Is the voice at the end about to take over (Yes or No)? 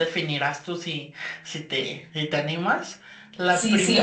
Yes